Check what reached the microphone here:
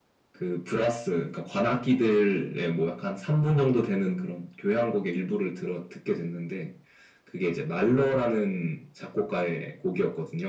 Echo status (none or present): present